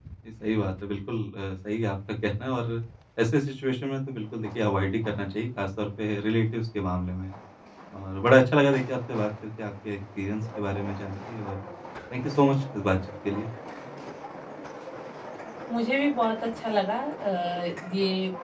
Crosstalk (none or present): none